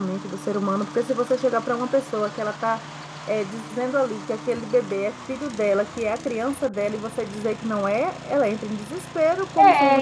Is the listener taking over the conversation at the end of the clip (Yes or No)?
Yes